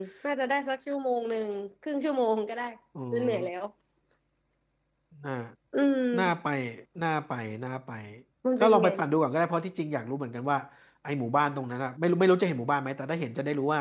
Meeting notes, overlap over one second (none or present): none